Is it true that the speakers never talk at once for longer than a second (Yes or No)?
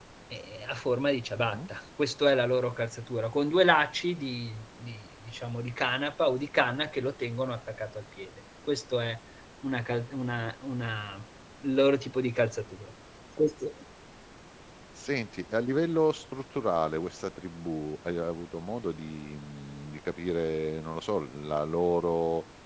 Yes